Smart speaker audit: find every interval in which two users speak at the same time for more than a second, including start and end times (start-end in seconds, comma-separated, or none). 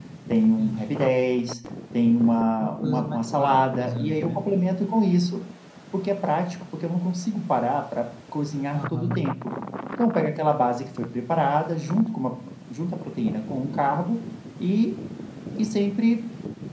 2.8-4.4